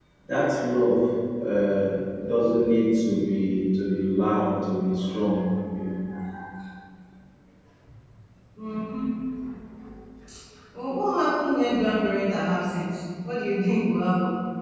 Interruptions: none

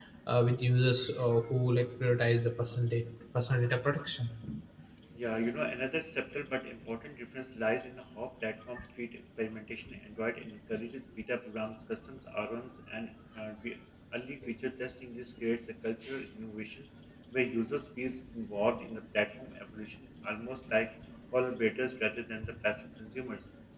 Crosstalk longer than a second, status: none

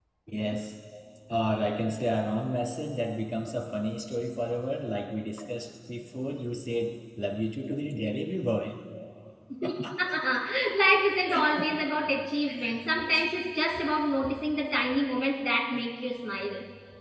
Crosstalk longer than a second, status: none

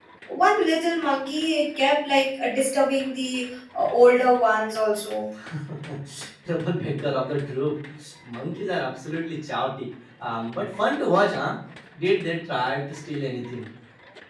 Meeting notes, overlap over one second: none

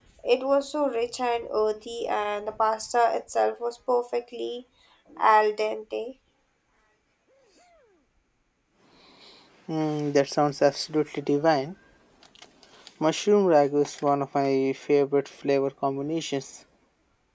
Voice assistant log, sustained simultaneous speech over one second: none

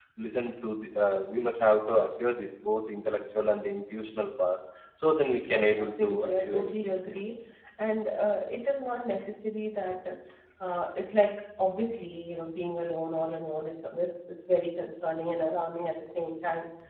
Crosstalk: present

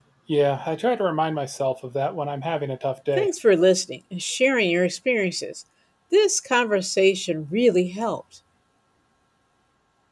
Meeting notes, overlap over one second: none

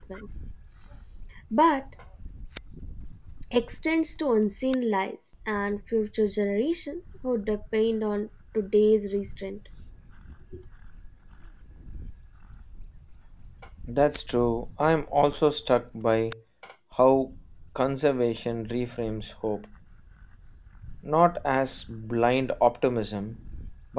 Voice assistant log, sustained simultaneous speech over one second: none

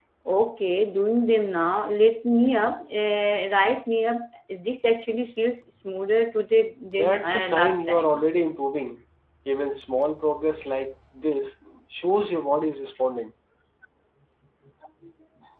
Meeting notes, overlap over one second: present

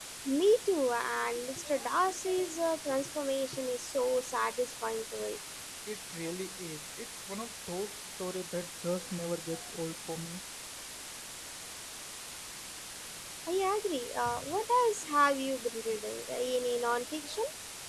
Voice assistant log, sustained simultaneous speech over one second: none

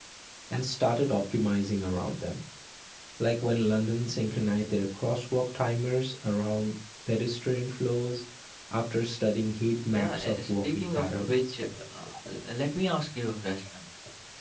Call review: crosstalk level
present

